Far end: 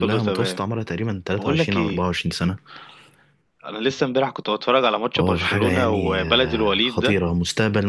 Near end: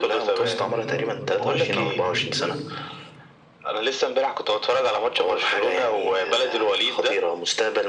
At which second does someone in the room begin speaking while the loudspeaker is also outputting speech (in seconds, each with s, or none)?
0.4 s